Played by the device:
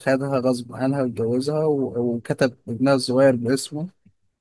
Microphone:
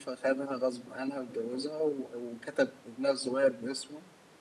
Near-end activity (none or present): none